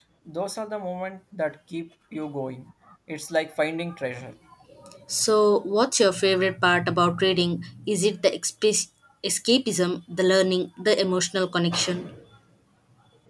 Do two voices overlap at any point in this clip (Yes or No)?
No